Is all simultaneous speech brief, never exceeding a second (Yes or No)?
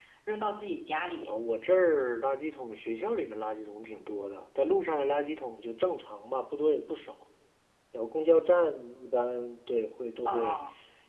Yes